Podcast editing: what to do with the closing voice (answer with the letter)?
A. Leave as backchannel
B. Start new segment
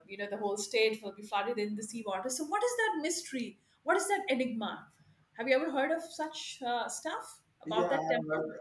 B